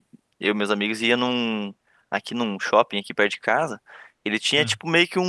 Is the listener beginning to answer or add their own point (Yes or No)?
No